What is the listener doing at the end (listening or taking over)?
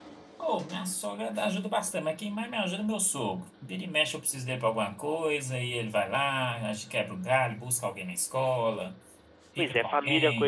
taking over